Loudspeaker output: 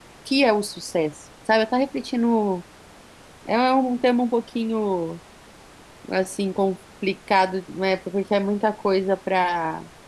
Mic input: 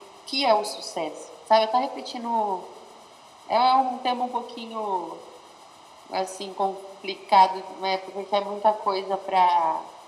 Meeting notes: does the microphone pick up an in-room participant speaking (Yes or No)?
No